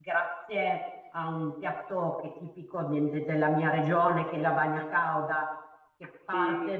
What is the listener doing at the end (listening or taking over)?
listening